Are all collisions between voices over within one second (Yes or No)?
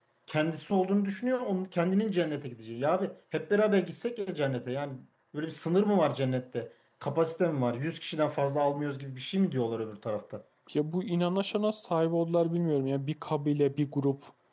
Yes